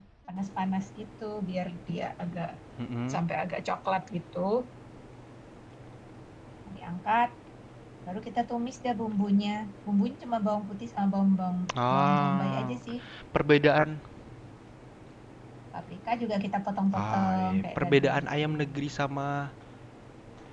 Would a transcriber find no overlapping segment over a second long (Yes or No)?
No